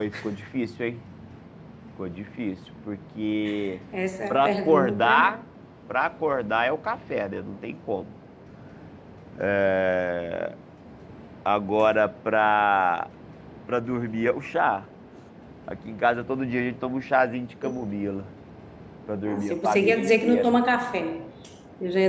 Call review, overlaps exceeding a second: present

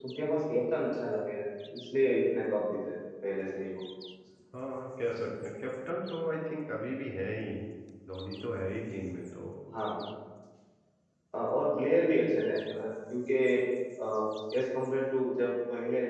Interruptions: none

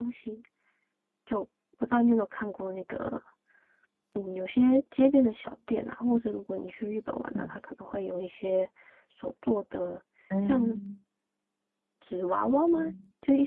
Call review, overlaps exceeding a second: none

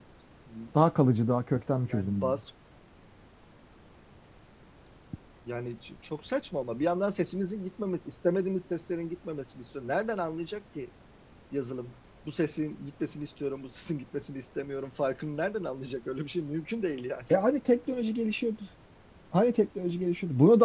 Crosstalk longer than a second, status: none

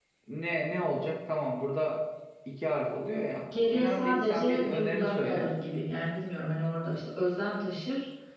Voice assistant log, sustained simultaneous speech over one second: present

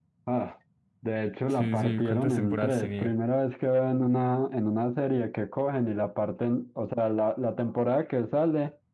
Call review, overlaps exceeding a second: present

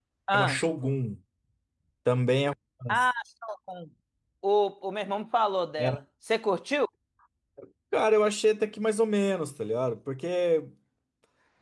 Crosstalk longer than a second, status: none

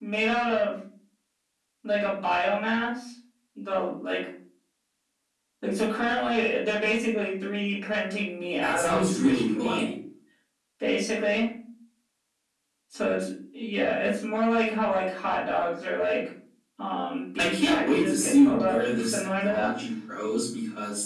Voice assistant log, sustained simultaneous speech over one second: present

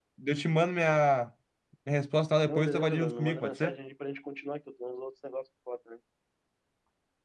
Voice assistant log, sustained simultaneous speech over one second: present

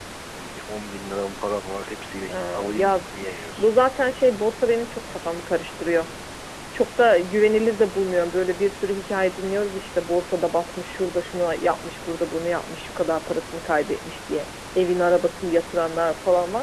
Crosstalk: present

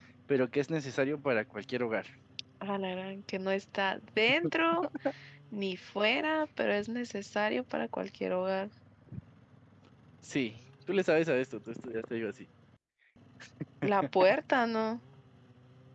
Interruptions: none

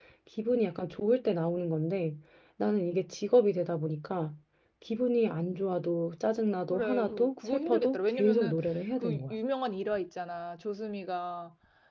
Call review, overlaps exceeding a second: present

